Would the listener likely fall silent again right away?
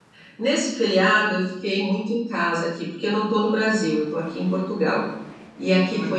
Yes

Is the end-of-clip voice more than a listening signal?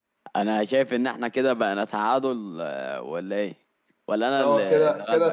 Yes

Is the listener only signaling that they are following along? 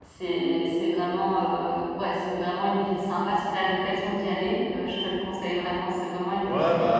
No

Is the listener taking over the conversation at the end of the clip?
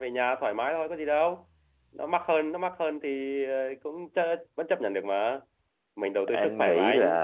Yes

